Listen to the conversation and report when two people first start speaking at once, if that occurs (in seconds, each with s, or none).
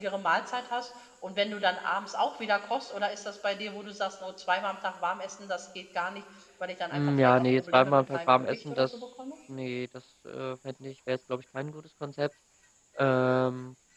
6.9 s